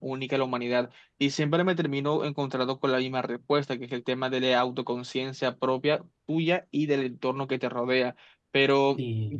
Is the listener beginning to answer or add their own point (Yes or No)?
No